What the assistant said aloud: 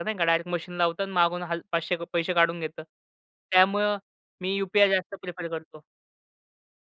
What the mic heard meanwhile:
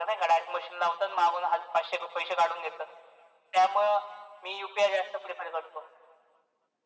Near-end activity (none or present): none